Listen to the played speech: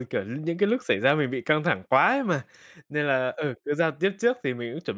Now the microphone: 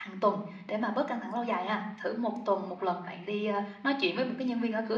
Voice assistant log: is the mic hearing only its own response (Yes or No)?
No